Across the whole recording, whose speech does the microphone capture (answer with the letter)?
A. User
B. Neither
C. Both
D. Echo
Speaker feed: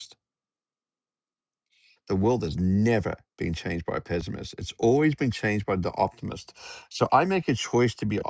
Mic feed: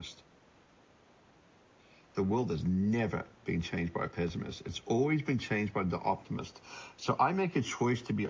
D